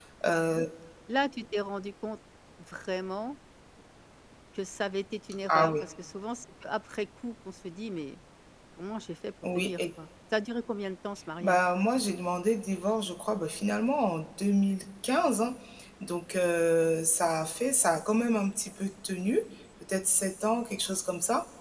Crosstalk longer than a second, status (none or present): none